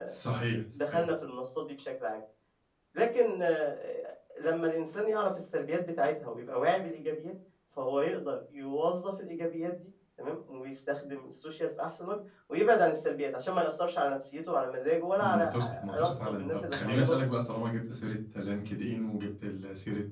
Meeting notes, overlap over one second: present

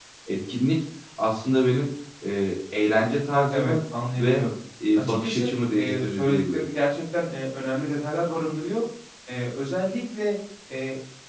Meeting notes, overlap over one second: present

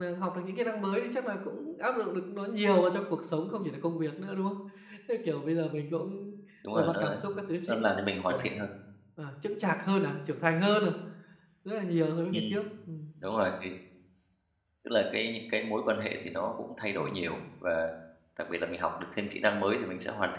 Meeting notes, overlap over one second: none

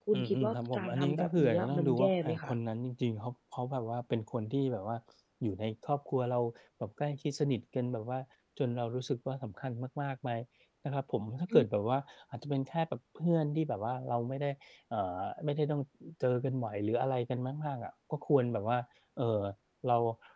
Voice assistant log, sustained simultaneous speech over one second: present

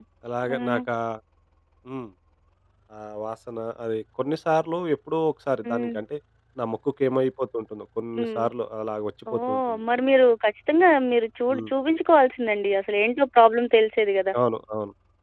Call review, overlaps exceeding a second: none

